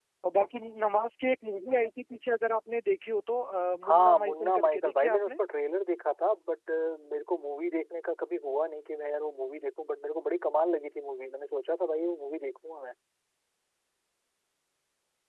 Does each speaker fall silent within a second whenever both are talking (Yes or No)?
No